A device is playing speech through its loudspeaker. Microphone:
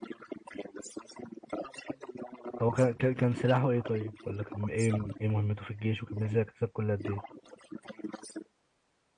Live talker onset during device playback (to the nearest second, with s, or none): 3 s